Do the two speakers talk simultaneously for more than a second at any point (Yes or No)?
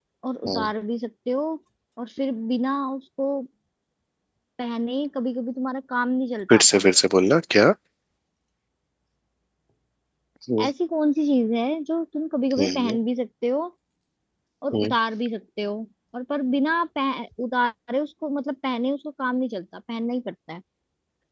No